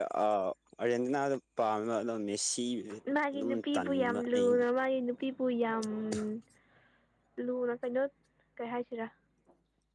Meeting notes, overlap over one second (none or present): present